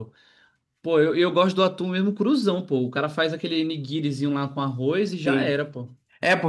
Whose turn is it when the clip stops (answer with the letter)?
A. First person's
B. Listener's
B